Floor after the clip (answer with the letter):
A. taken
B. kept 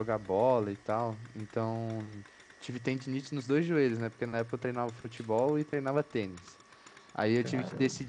B